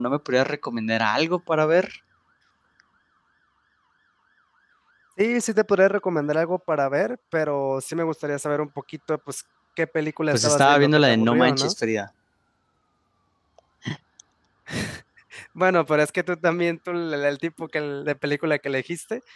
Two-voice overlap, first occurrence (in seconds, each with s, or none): 10.3 s